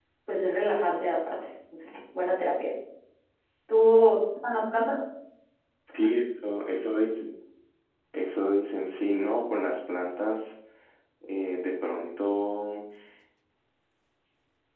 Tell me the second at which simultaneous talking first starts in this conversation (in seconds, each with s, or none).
none